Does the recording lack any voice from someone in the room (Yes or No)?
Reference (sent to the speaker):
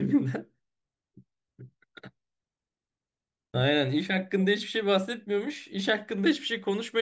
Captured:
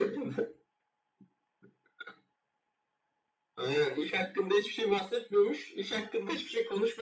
Yes